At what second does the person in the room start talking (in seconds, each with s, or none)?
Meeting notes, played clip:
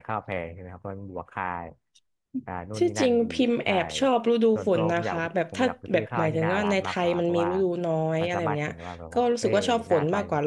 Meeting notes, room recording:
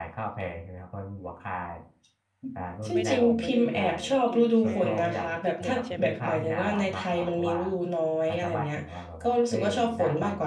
2.9 s